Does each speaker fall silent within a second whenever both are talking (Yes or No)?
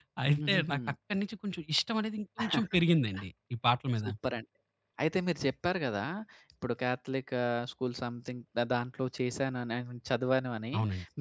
Yes